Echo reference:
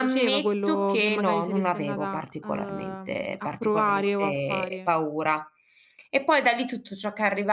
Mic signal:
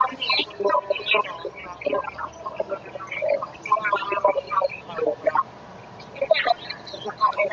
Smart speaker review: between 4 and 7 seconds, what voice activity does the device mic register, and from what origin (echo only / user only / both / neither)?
echo only